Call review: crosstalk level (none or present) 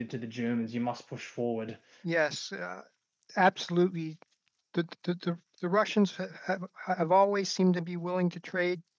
none